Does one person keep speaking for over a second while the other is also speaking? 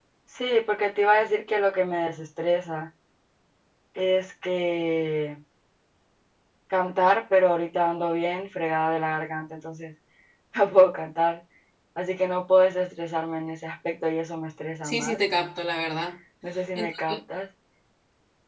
No

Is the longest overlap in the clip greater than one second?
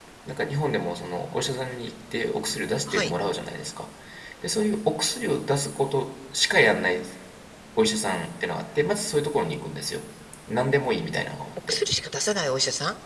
No

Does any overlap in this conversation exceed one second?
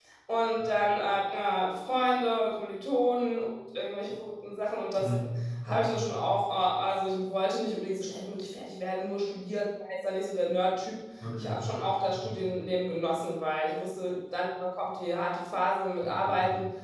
No

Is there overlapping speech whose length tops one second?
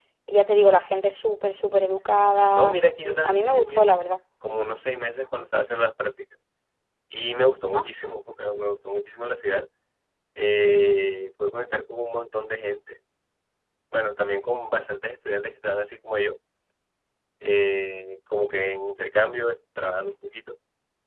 Yes, from 2.5 s

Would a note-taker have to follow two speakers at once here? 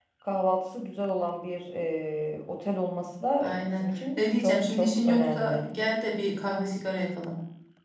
Yes, from 3.4 s

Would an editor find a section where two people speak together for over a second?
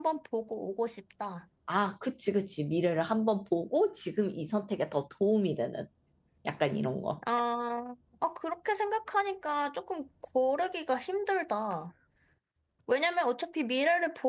No

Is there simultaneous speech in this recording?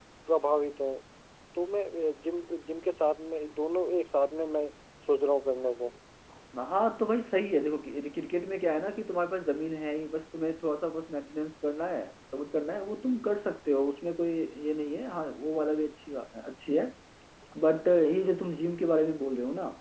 No

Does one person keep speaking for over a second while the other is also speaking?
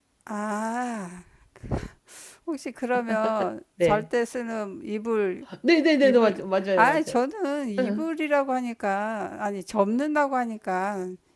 No

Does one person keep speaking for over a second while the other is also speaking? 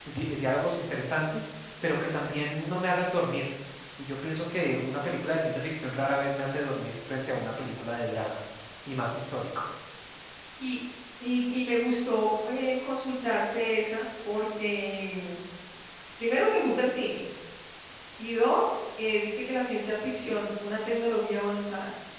No

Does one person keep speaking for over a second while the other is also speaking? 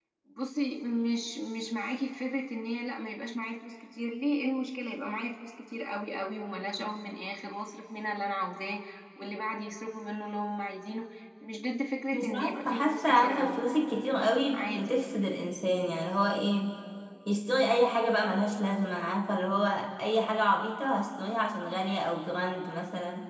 Yes, from 12.1 s

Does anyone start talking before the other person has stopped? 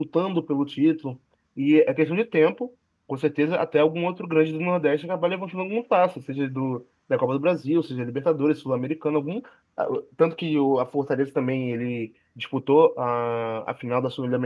No

